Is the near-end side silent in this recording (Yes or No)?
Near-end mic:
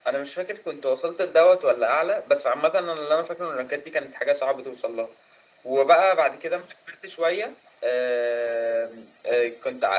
Yes